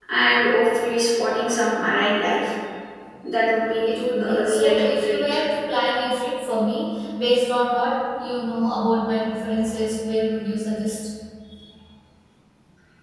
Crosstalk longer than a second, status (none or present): present